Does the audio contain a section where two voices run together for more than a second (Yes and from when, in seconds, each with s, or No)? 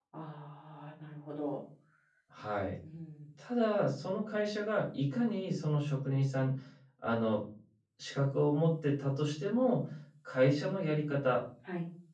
No